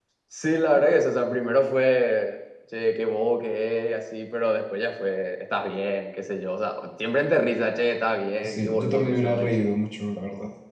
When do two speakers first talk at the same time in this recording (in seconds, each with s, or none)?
8.4 s